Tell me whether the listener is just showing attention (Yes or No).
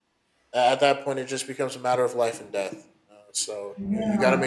Yes